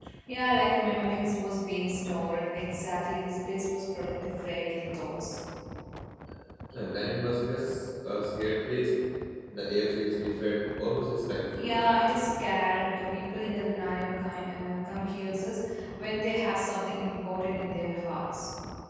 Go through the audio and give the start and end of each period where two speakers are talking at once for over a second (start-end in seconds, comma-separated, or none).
none